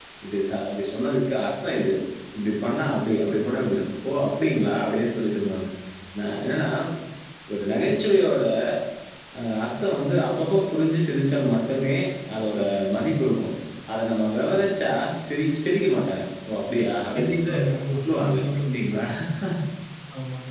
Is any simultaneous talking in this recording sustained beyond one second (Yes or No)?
Yes